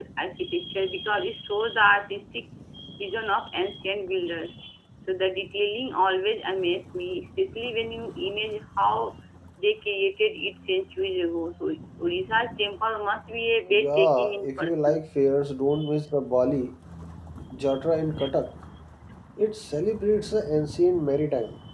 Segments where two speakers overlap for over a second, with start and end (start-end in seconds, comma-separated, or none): 13.7-15.0